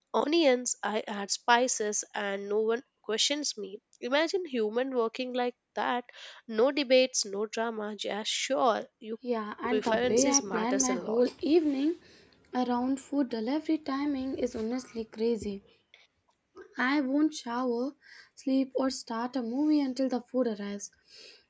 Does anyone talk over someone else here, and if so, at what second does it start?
9.7 s

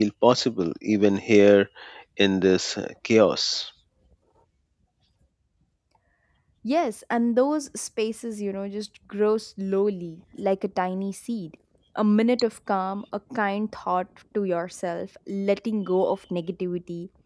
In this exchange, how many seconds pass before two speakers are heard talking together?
none

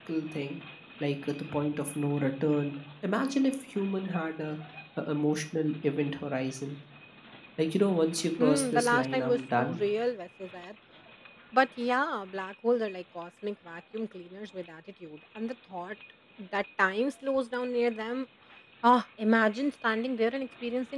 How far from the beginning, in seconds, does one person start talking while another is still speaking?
8.4 s

